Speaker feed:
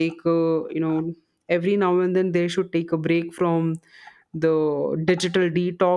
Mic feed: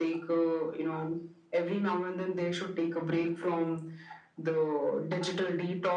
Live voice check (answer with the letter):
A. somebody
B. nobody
B